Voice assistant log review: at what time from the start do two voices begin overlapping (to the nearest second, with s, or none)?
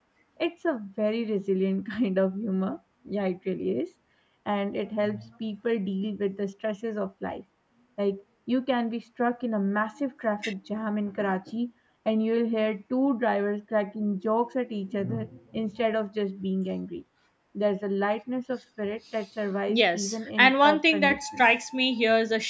20 s